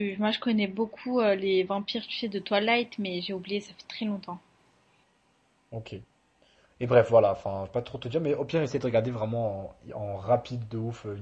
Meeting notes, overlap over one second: none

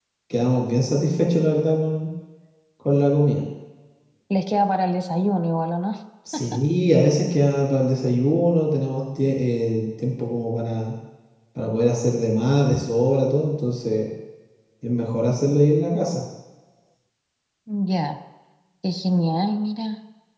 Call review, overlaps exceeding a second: none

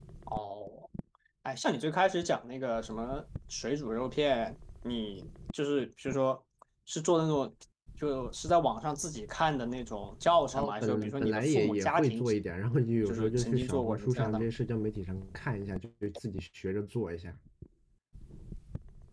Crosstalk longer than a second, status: present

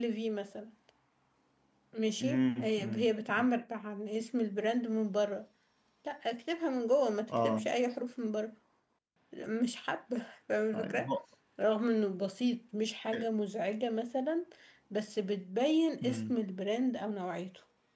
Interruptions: present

